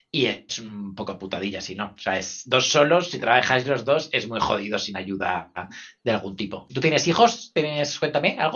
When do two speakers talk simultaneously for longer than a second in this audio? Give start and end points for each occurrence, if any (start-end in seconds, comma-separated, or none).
none